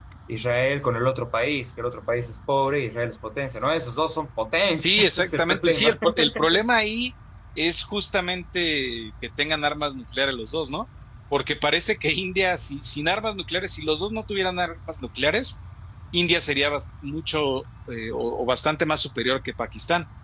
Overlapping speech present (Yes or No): Yes